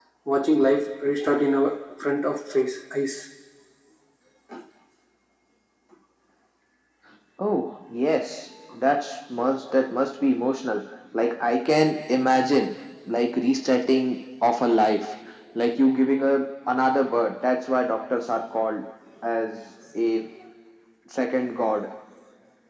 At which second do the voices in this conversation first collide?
none

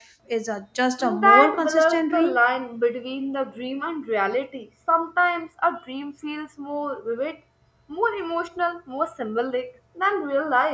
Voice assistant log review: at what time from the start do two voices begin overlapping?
1 s

